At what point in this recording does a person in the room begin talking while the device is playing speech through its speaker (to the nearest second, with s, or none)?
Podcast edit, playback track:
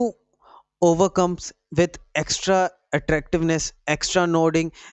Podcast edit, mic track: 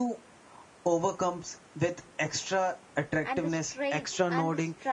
3 s